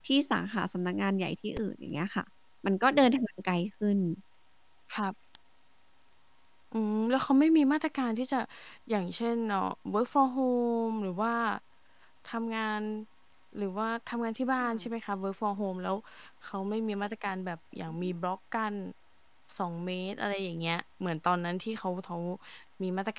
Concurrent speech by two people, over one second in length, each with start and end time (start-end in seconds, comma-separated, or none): none